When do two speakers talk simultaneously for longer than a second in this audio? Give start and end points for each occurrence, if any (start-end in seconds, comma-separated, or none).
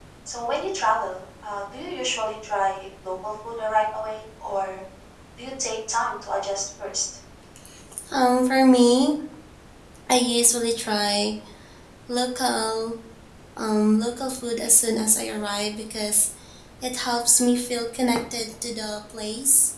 none